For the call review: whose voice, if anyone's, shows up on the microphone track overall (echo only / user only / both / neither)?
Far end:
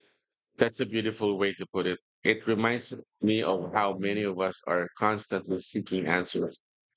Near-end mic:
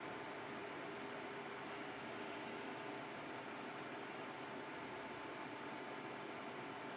neither